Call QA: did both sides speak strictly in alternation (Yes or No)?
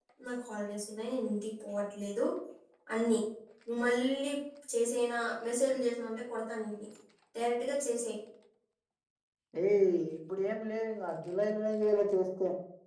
Yes